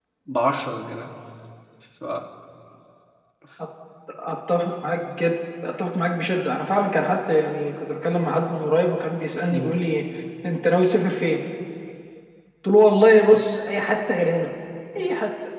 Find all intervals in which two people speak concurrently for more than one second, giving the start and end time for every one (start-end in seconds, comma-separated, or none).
none